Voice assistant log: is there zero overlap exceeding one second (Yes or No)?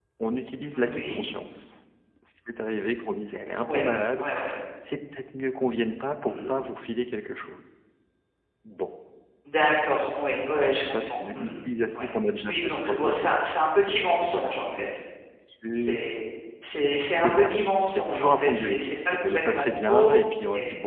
No